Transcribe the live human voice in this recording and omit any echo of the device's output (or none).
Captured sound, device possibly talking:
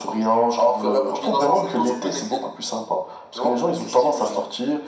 none